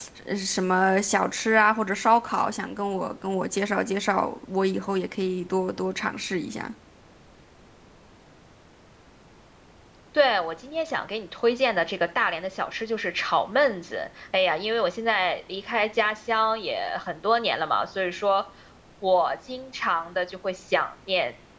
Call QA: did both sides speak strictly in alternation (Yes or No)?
Yes